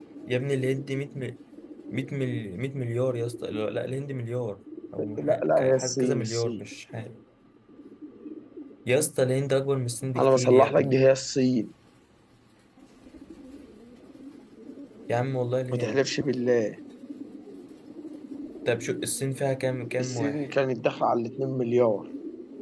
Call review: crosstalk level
present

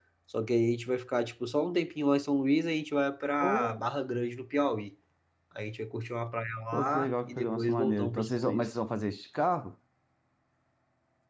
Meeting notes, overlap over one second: present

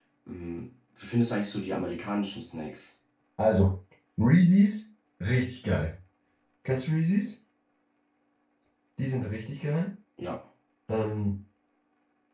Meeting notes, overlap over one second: none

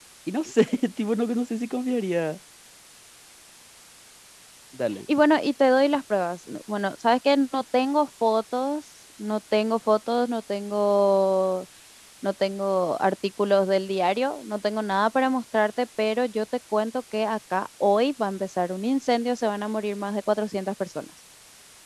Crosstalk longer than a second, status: none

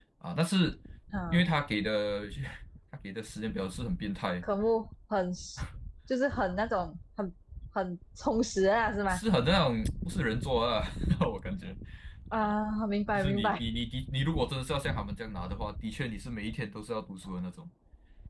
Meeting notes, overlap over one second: none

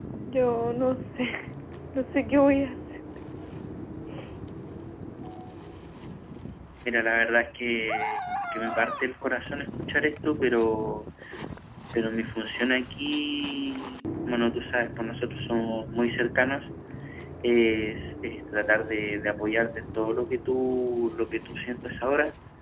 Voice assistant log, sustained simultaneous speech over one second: none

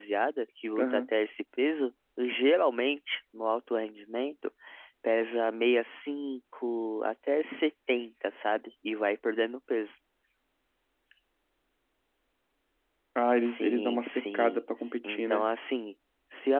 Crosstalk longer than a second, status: present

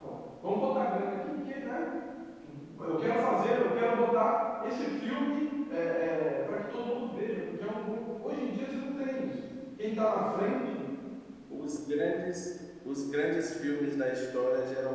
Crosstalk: none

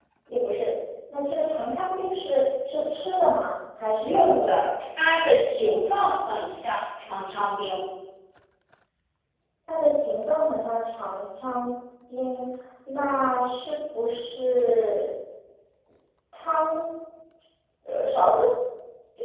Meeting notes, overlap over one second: none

